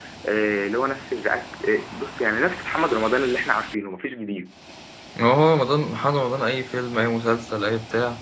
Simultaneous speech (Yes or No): No